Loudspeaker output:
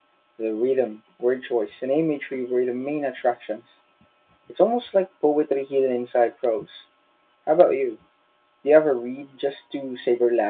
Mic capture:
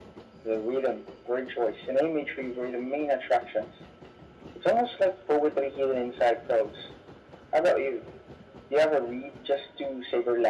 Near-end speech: none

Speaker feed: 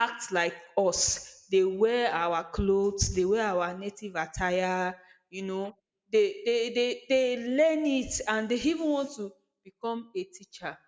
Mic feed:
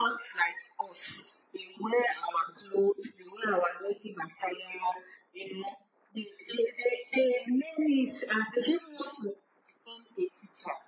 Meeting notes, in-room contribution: none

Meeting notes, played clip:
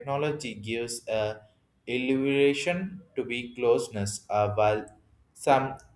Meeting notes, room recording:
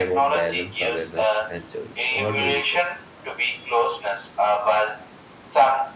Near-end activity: present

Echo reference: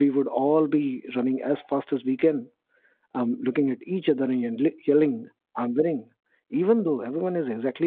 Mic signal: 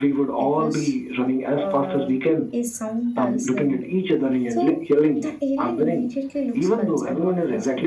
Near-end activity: present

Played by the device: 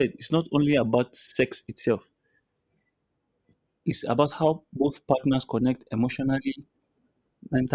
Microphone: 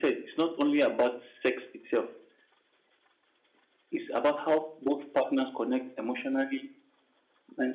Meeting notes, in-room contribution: none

